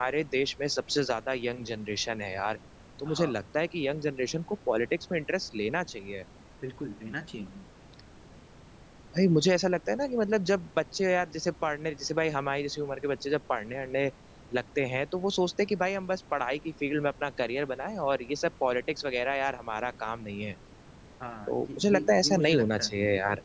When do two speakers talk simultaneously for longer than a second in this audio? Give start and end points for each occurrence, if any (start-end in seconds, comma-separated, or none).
21.5-22.9